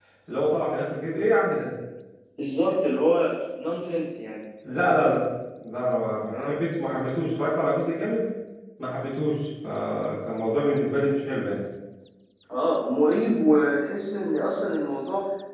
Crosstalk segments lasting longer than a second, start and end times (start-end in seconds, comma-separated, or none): none